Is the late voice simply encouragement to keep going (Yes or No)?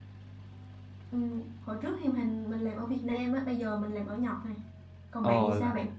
No